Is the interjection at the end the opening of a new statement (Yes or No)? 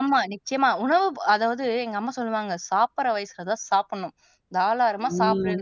No